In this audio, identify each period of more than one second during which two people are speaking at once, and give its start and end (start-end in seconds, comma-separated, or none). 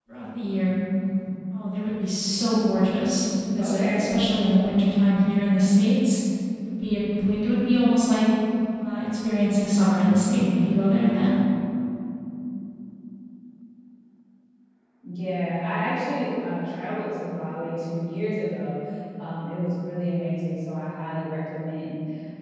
none